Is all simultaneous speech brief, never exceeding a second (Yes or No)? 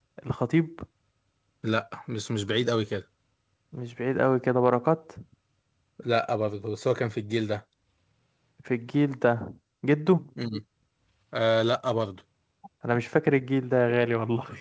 Yes